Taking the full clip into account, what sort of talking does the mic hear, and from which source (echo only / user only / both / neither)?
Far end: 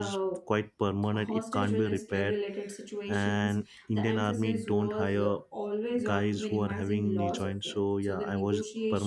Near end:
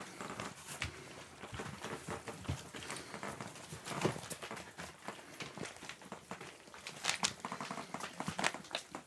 neither